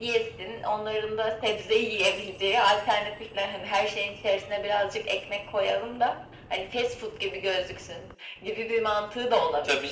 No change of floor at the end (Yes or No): No